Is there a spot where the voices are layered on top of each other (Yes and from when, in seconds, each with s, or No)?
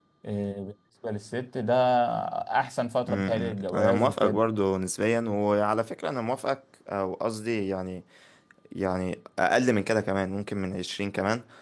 Yes, from 3.1 s